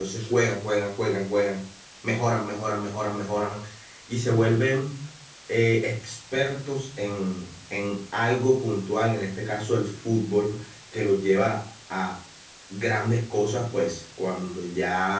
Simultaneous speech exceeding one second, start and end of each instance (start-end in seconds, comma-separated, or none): none